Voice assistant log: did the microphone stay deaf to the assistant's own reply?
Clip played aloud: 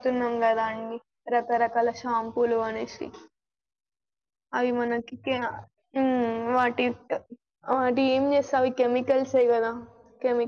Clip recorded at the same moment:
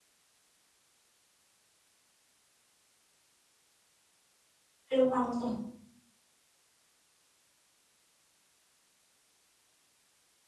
Yes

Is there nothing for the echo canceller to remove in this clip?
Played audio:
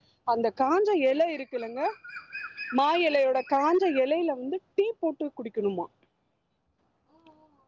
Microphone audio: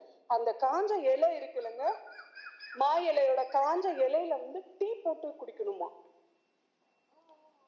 No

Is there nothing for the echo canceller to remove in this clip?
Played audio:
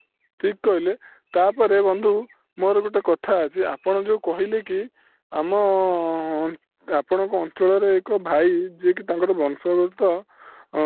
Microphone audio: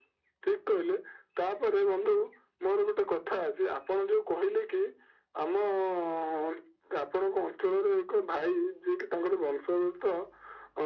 No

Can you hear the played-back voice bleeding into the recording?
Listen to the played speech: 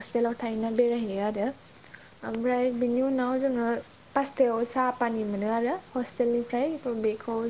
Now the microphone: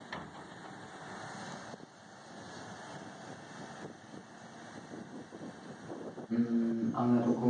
No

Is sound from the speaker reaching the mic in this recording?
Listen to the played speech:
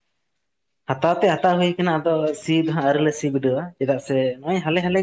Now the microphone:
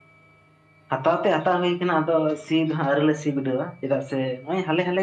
Yes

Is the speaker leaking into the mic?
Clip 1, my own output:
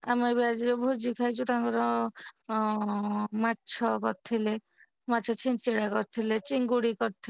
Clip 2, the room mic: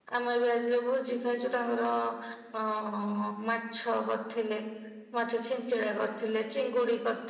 Yes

